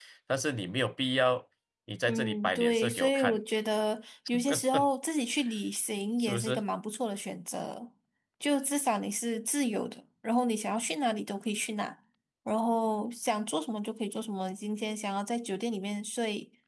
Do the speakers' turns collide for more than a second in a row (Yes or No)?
Yes